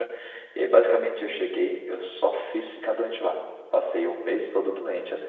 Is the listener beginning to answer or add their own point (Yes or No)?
No